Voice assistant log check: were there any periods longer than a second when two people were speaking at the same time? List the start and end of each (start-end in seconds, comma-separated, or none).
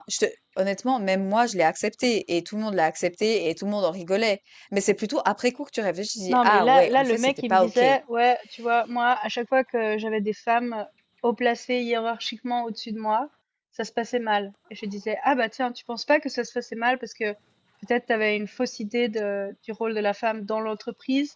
6.3-7.8